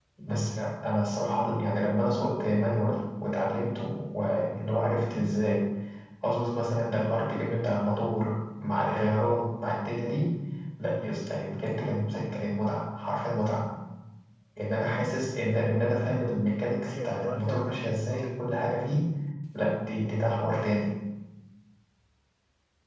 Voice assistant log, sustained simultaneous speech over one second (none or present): present